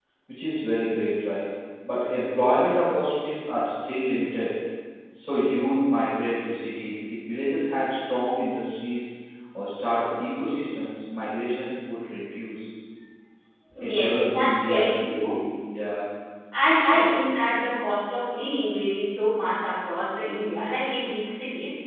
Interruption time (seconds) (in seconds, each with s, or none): 13.9 s